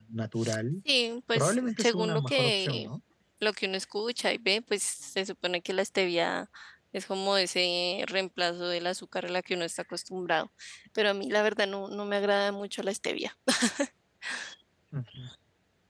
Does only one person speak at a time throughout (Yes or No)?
No